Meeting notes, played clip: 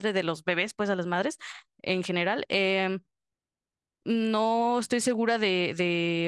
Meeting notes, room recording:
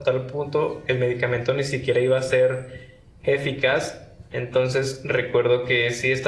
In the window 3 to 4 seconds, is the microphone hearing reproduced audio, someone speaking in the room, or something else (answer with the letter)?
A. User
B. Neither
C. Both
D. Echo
A